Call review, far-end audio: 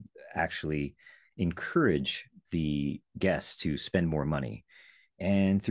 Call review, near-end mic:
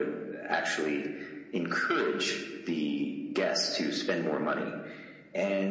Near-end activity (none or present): none